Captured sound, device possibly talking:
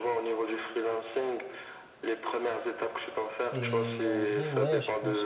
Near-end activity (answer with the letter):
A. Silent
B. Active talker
B